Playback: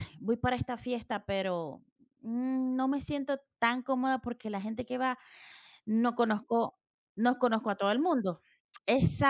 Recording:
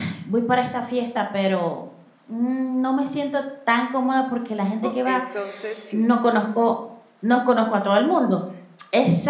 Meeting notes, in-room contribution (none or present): present